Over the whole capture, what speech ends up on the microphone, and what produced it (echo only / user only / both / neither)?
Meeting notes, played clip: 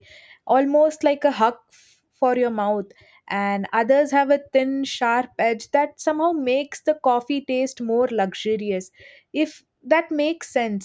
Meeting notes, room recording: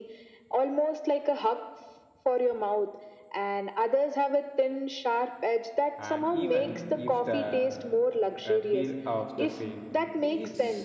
both